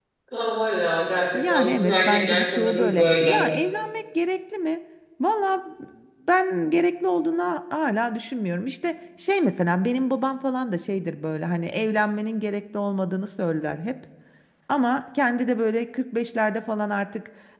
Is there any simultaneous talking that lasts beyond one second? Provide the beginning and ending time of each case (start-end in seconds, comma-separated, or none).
1.3-3.4